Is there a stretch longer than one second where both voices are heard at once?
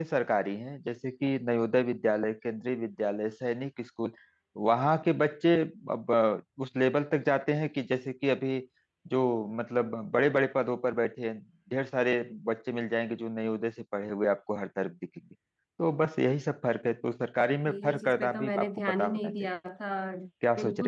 Yes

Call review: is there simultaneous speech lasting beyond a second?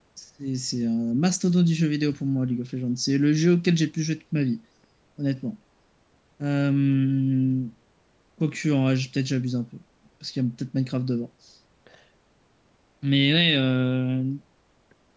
No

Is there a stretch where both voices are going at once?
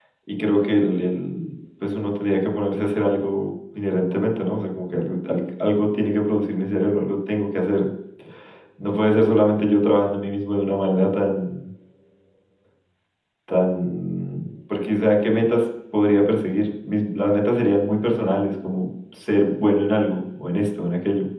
No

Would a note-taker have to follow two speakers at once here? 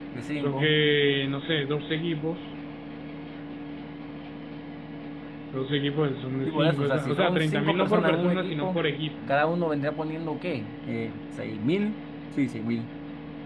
Yes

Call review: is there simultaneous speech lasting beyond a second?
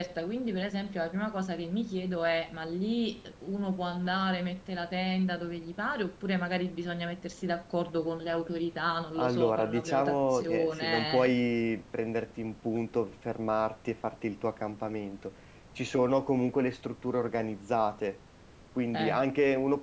Yes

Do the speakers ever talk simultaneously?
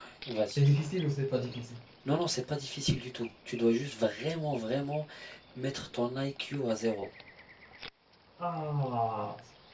No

